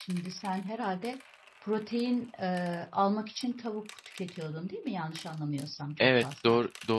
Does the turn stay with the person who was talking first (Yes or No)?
No